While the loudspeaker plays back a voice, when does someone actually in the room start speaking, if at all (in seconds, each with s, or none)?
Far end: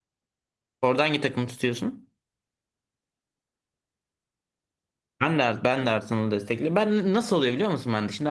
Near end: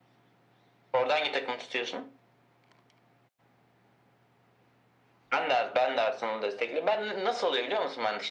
none